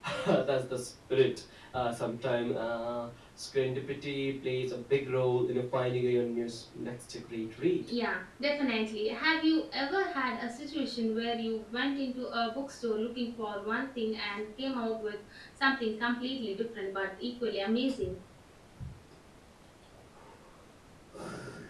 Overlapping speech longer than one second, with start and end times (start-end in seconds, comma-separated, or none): none